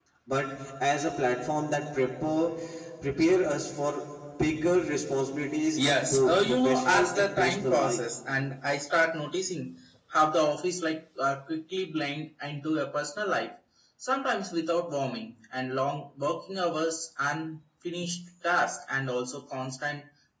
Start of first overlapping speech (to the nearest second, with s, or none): 6 s